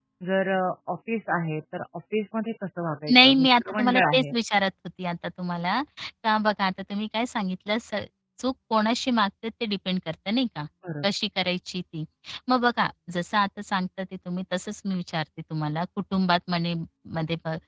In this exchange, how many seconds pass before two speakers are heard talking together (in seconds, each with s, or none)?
3.1 s